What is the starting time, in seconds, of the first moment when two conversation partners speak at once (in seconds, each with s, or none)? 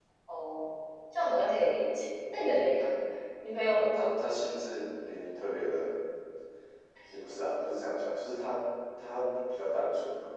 none